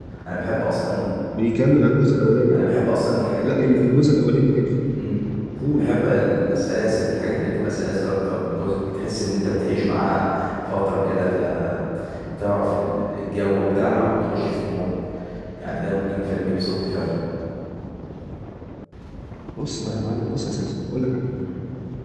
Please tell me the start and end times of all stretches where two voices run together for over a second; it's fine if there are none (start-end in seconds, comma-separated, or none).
none